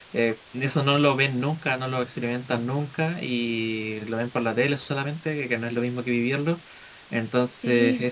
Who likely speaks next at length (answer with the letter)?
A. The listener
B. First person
B